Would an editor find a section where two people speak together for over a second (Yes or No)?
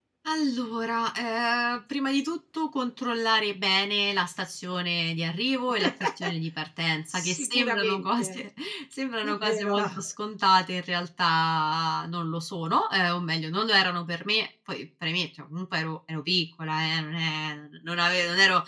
Yes